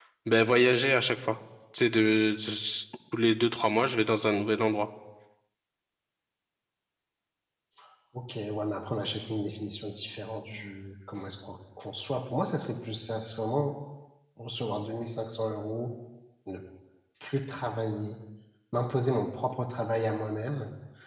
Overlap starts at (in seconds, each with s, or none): none